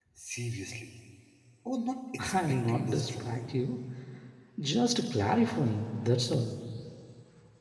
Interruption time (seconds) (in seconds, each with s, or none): 2.2 s